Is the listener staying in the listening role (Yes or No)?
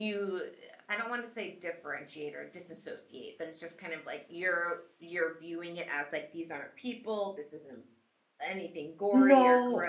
Yes